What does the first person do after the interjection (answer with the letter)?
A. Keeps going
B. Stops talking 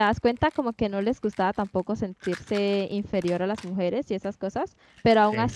A